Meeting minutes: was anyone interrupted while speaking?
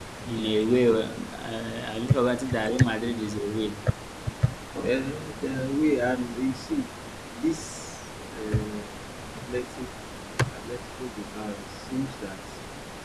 No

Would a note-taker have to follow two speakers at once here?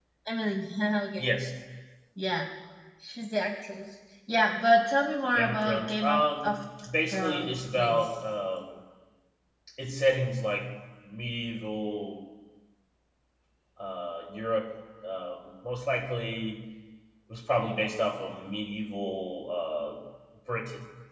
Yes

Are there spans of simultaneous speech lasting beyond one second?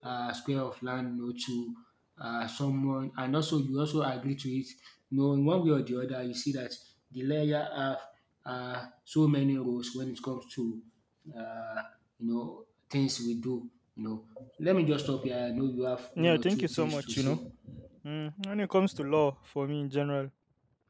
Yes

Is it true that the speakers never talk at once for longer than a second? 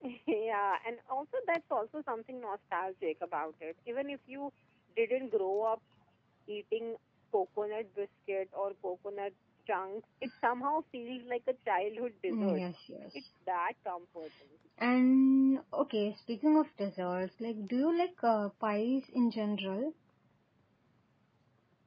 Yes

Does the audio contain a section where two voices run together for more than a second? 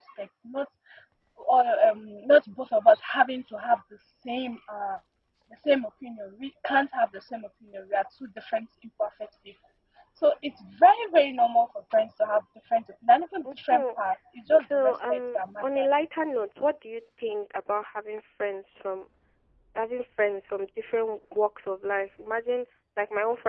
Yes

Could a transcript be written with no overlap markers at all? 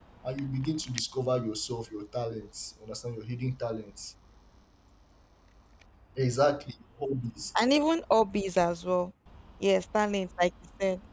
Yes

